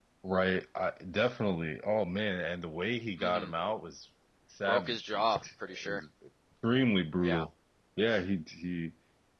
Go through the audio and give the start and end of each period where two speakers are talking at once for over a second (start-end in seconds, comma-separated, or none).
4.7-6.0